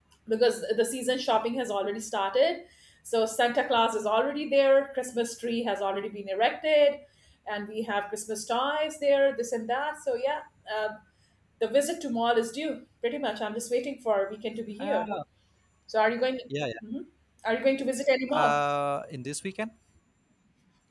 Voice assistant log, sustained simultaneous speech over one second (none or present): none